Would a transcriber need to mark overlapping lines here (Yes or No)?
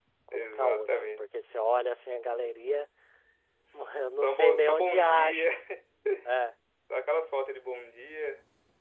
Yes